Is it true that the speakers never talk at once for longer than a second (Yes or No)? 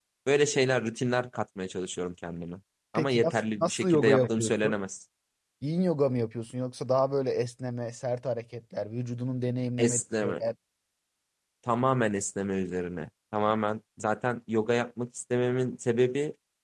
No